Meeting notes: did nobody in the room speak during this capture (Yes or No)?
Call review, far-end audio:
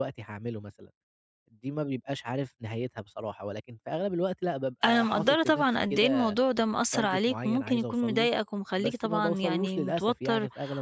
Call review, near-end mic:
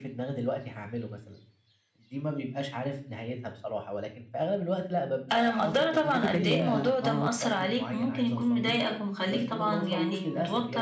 No